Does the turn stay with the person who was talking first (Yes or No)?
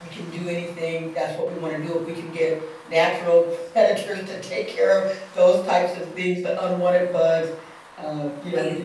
Yes